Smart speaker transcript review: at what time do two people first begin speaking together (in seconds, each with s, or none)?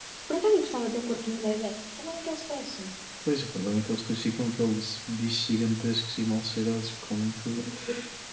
none